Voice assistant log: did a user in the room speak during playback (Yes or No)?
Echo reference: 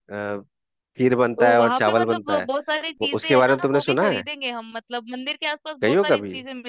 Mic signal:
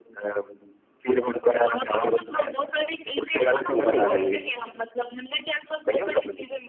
Yes